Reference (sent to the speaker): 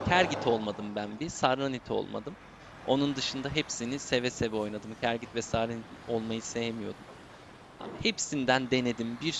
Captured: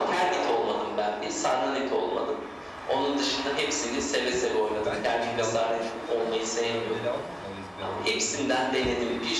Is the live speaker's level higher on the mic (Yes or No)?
No